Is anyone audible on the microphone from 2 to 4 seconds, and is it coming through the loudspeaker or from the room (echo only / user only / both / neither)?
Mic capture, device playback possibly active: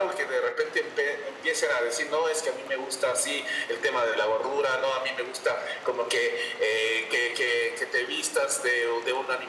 echo only